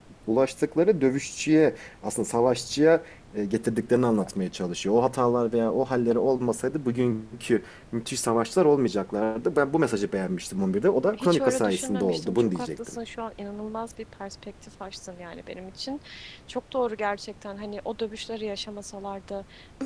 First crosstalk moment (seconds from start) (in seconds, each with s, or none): 11.1 s